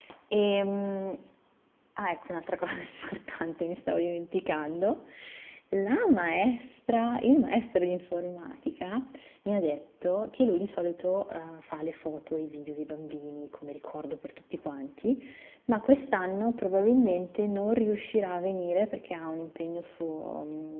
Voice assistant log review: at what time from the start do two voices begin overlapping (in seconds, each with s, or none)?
none